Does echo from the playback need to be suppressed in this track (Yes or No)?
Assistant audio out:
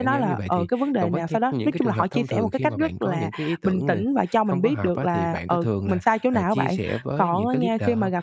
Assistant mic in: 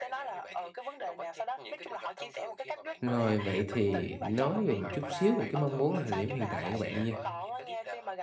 Yes